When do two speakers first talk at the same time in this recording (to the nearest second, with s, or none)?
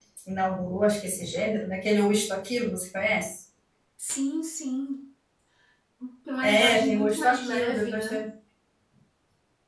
6 s